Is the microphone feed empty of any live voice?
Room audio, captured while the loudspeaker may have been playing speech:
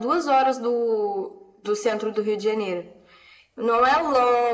Yes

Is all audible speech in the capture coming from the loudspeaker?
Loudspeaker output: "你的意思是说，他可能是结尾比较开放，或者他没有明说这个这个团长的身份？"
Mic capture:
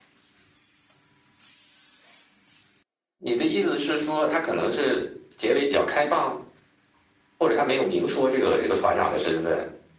Yes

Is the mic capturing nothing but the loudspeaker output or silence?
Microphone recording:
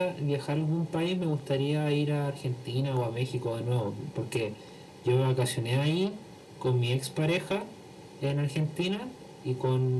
Yes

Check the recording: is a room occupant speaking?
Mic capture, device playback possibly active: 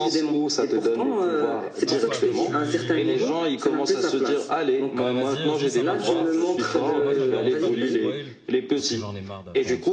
Yes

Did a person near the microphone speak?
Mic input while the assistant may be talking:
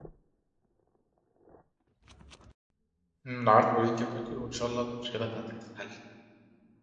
Yes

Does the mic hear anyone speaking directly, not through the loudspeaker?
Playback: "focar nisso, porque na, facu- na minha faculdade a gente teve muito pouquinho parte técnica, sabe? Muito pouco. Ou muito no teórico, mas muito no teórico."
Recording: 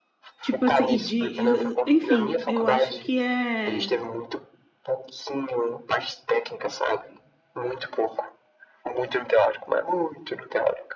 Yes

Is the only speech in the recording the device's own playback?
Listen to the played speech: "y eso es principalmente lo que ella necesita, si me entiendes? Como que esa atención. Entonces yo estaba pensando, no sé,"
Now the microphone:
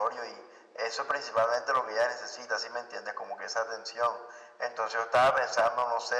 Yes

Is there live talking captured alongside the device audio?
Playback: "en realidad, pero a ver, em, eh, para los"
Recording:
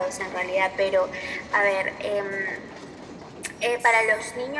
No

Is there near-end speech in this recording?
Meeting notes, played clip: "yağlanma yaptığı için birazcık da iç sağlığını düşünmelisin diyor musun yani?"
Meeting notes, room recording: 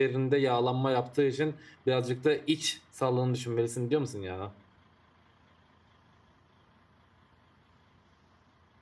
No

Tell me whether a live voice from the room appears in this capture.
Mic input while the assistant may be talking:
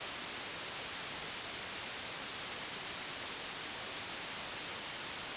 No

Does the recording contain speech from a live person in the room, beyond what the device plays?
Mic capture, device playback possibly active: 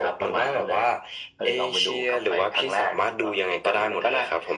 No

